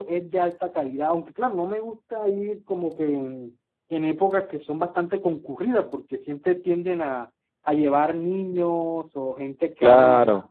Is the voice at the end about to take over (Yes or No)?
No